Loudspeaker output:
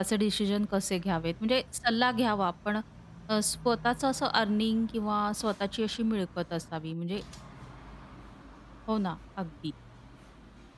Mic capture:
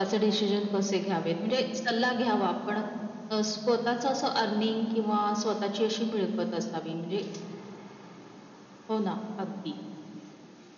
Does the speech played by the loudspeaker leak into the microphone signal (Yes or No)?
Yes